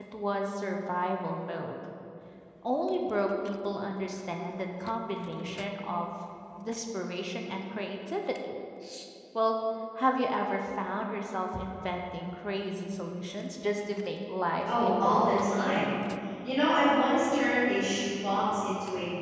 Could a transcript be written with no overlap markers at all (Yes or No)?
No